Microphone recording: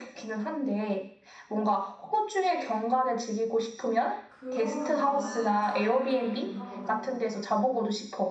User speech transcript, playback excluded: 그러면 나는 자연 쪽이긴 하거든?

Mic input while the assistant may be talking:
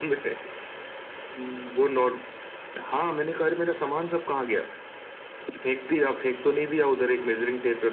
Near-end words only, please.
none

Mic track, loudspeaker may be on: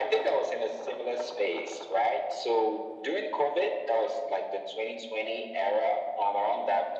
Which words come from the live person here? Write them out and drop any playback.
none

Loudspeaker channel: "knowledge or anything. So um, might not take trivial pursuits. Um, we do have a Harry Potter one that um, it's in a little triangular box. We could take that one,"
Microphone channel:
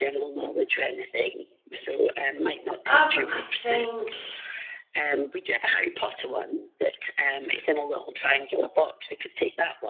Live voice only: Um, I think

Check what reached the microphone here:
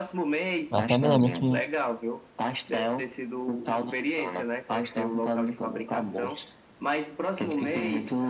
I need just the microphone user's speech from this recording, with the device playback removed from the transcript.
Eu até me lembro que,

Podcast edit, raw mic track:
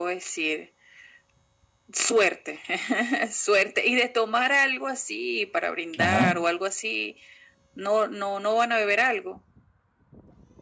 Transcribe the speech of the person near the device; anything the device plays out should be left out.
Ajá.

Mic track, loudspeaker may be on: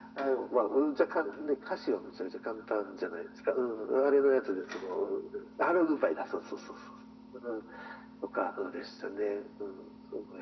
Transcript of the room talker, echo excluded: none

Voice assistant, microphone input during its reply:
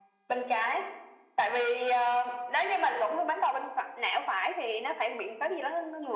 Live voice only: none

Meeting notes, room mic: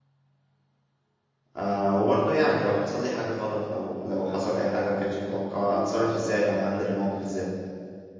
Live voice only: آه وبرضو يعني لو حصل لي حاجة غلط او لو حصل اي حاجة ما كانتش متوقعة اتصرف ازاي او هندل الموقف ازاي

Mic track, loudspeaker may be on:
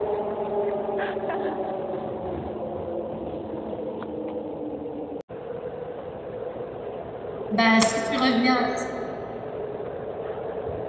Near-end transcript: Bah, si tu reviens,

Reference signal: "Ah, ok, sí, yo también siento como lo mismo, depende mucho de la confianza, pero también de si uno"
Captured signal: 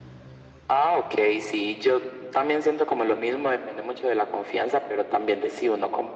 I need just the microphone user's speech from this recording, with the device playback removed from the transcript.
none

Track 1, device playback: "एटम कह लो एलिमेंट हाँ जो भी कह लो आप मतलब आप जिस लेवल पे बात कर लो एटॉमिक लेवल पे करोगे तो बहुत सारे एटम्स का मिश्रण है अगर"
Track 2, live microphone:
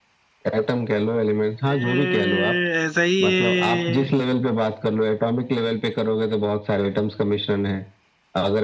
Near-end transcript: ए, ऐसा ही है

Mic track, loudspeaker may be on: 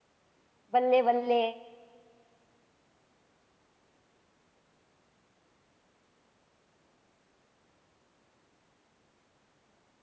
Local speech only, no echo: बल्ले बल्ले

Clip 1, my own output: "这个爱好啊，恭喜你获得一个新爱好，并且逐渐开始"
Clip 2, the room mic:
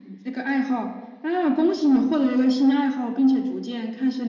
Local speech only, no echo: none

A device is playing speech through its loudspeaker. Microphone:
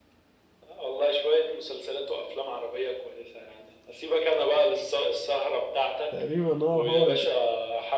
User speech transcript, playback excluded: تقريبا هو هو اللي

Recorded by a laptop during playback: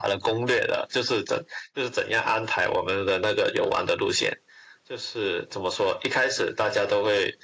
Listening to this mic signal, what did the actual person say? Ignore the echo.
none

